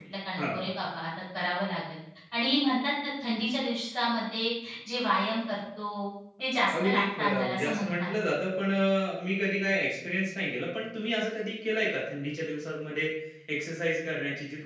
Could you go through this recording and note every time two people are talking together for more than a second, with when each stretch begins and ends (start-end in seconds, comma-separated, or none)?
6.8-8.1